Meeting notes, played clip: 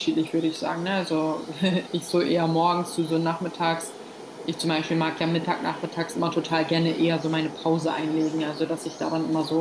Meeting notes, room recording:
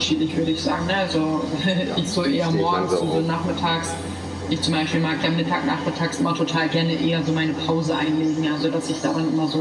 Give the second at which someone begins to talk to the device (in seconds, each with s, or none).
1.8 s